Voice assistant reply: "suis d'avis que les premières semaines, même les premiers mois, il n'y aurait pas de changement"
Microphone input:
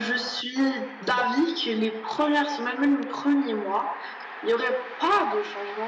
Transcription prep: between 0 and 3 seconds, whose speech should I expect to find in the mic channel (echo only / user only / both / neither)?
echo only